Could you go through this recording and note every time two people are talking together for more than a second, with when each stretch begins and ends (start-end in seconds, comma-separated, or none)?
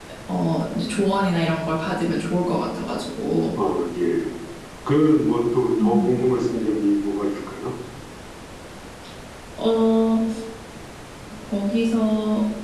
none